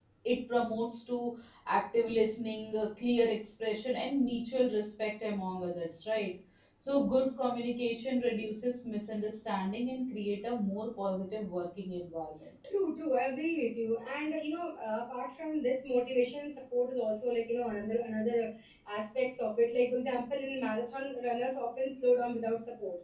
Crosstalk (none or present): none